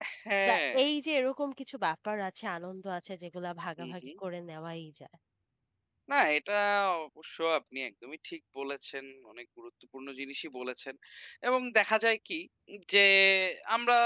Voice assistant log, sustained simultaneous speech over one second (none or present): none